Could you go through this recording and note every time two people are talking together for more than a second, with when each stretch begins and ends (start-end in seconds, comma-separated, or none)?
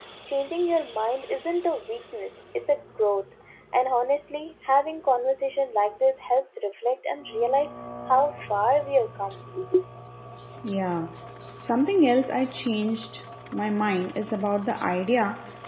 none